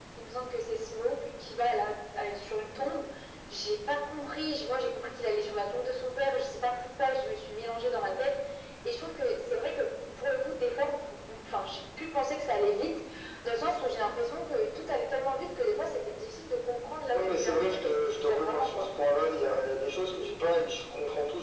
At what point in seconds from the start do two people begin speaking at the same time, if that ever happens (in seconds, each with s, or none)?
17.1 s